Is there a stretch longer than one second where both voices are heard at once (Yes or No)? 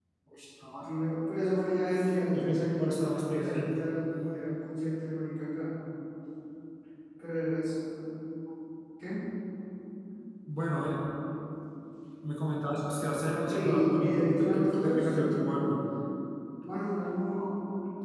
Yes